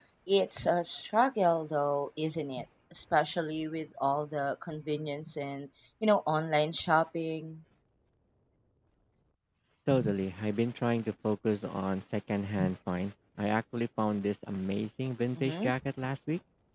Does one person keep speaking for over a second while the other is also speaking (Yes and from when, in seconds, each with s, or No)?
No